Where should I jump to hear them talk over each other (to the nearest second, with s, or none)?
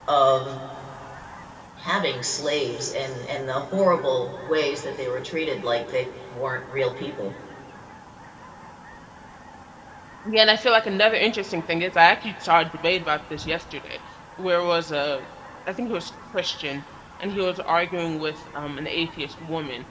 none